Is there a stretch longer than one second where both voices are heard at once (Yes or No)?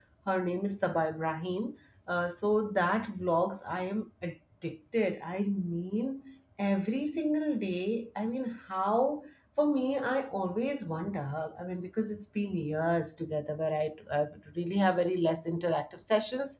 No